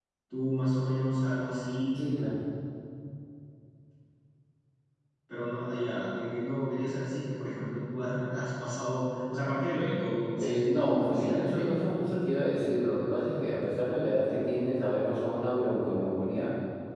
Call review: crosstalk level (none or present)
present